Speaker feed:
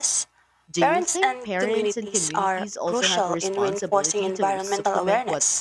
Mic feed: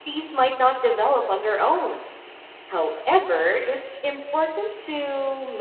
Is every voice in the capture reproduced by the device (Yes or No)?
No